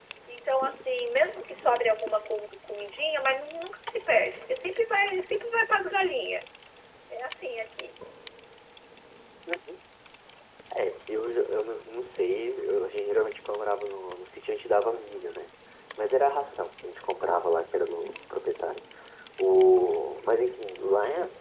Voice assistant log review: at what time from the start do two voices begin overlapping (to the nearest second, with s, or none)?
none